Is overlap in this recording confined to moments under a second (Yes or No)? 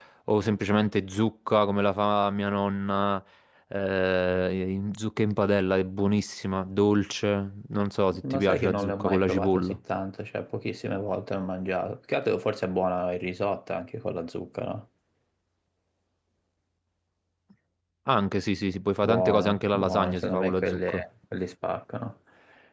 No